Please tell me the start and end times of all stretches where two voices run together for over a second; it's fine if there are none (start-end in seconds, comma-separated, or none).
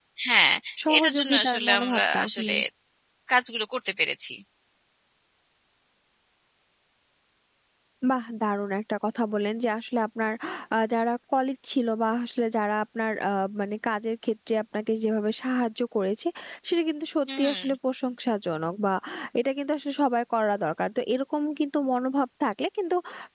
1.0-2.5